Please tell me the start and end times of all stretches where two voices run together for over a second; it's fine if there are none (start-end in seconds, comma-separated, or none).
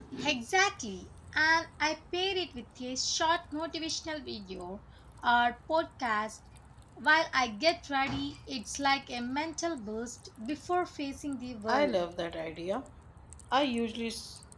none